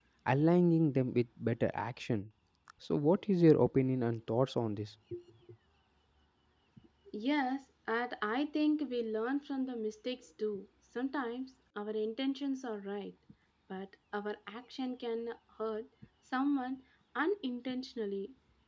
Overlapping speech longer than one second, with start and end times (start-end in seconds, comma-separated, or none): none